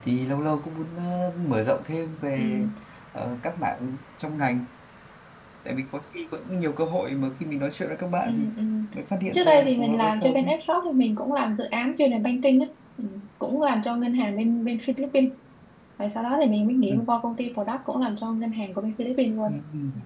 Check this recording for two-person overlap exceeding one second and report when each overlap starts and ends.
9.3-10.5

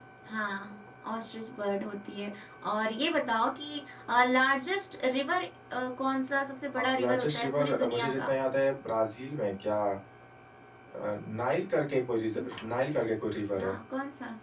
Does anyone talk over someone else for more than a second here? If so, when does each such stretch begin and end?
7.0-8.3

